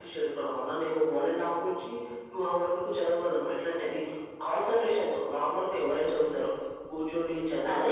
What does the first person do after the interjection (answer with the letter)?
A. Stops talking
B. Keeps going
A